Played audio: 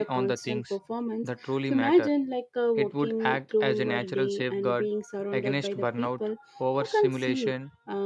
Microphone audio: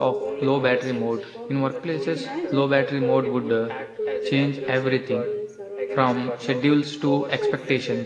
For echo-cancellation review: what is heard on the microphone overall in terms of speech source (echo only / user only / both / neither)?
both